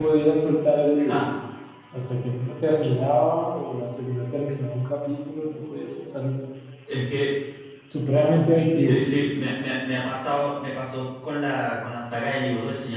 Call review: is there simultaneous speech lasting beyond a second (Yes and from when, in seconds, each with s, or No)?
No